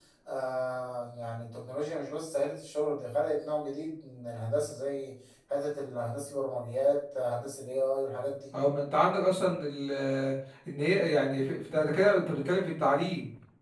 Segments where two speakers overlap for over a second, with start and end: none

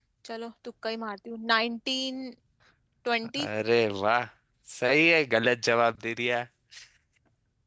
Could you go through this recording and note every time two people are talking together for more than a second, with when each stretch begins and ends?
none

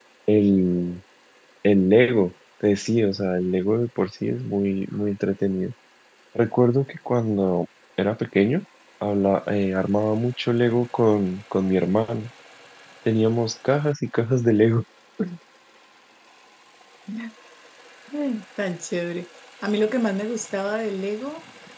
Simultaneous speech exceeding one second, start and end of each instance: none

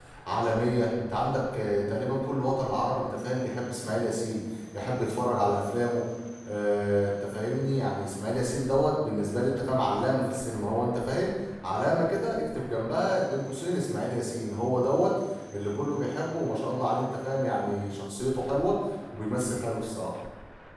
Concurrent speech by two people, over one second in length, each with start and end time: none

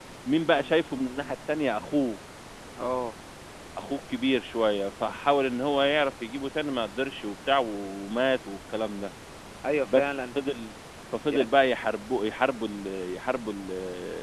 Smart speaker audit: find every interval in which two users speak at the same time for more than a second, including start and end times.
none

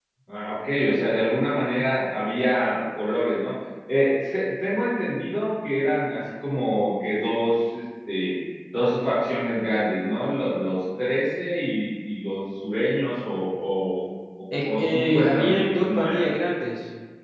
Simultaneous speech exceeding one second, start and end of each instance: 14.6-16.3

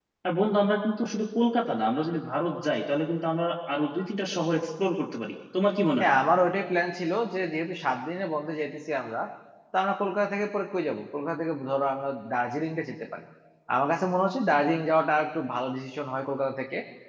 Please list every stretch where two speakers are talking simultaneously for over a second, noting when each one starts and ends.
none

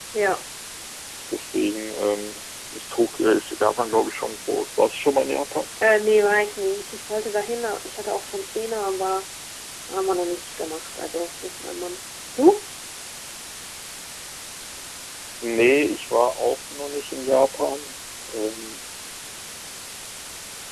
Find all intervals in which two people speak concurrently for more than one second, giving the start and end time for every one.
none

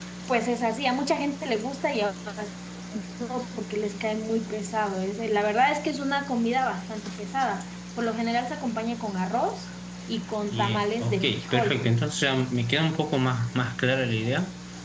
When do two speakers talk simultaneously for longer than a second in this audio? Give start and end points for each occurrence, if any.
10.5-11.8

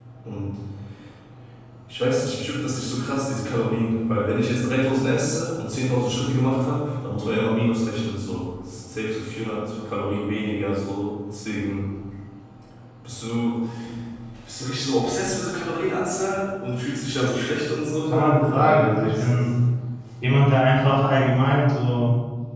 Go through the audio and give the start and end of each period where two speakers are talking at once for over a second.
18.1-19.4

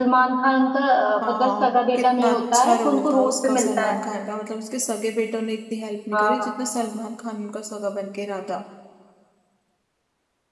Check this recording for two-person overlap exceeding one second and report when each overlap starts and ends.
1.3-3.9

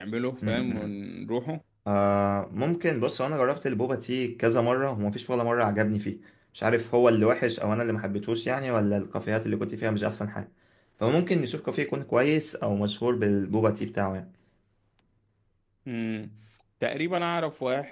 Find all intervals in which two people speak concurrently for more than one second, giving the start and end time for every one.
none

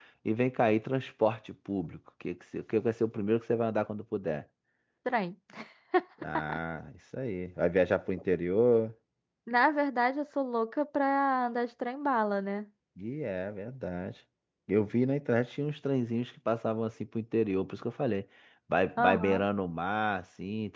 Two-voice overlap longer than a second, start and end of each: none

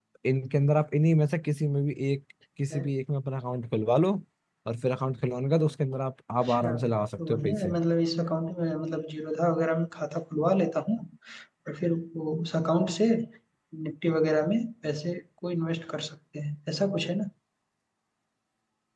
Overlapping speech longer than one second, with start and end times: 6.5-7.7

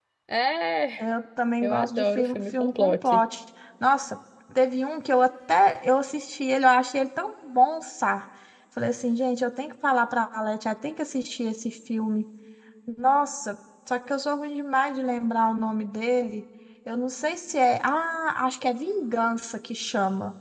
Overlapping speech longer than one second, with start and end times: 1.6-3.2

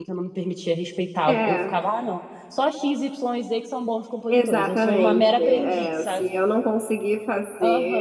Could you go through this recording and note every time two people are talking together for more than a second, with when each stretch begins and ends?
4.3-6.2

